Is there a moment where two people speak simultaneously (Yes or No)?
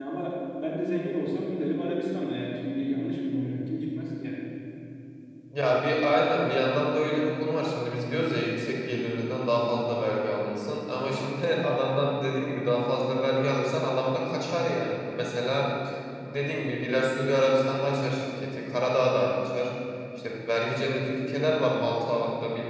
No